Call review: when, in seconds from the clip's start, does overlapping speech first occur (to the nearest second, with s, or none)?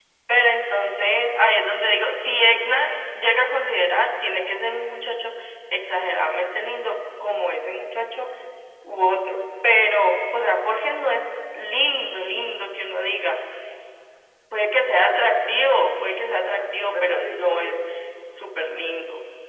16 s